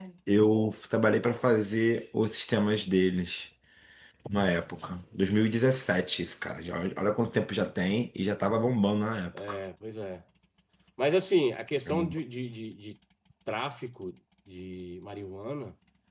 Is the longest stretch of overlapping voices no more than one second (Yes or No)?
Yes